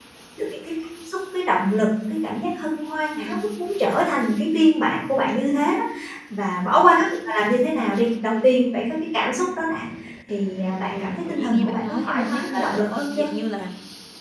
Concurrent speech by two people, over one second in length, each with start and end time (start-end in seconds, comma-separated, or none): 10.8-13.3